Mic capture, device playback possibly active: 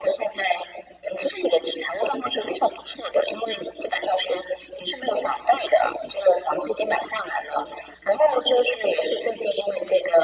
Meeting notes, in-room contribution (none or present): none